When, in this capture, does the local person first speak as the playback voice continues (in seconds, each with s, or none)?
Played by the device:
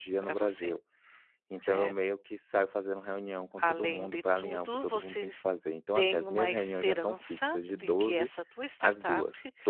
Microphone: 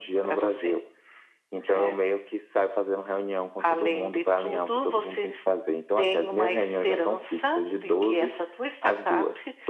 none